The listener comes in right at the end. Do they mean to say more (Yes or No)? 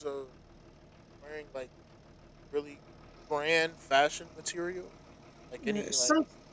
Yes